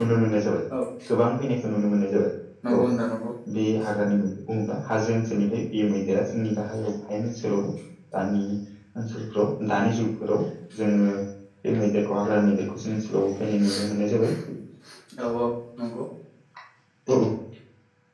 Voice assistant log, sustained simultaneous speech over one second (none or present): none